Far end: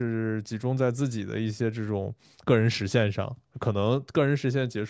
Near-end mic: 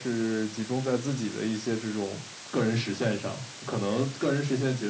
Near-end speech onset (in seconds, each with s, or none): none